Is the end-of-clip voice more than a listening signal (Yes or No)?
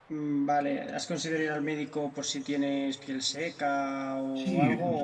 Yes